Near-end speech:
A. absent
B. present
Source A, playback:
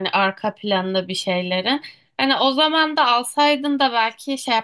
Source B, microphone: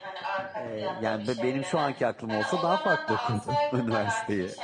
B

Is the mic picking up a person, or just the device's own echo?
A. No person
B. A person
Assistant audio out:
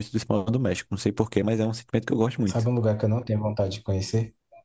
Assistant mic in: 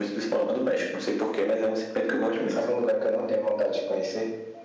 A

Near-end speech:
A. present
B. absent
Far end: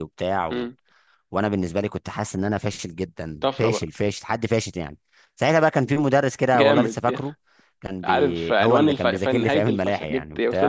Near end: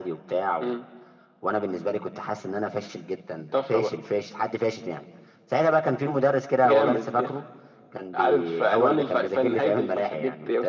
B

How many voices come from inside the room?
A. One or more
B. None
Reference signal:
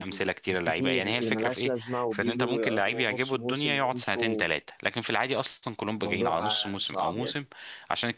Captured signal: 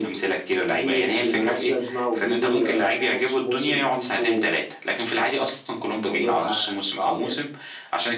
B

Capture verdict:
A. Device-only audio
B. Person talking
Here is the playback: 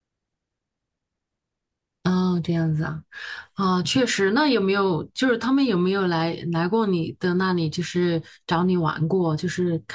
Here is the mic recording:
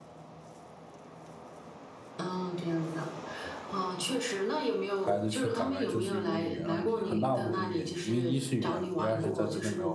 B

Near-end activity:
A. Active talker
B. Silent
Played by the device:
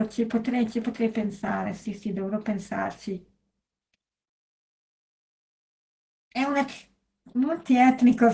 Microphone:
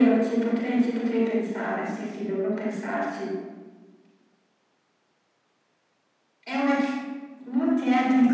B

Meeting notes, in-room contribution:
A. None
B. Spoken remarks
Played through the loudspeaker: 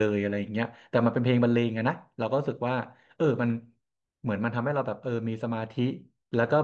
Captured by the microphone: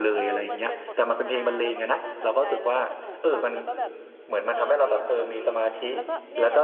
B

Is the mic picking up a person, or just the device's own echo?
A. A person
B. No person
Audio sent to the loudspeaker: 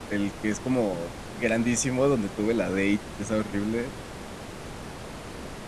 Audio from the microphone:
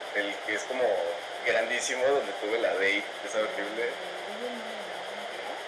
A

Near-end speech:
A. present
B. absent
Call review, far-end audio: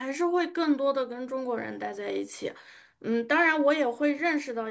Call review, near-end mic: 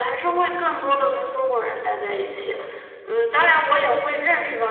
B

